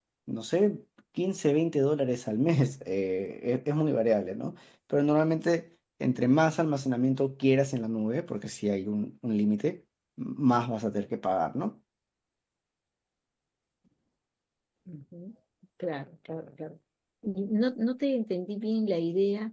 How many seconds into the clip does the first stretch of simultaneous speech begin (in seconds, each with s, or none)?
none